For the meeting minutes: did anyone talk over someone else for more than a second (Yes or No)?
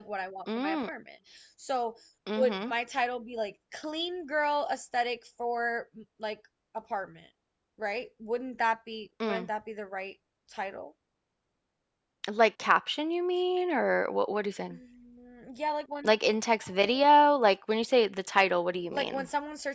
No